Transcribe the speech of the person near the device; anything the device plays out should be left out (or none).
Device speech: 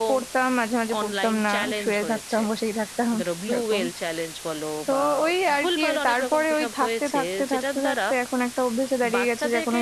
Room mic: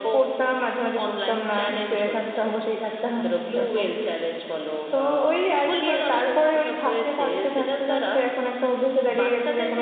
none